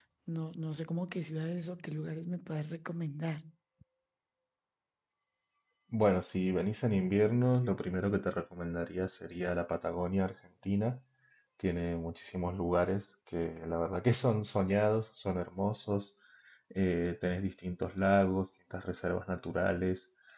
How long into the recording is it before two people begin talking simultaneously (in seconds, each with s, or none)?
none